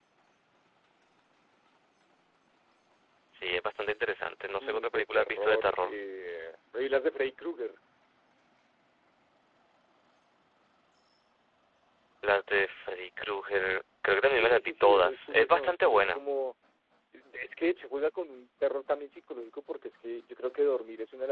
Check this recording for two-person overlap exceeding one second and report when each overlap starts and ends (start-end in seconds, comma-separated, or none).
4.6-6.0, 14.3-16.2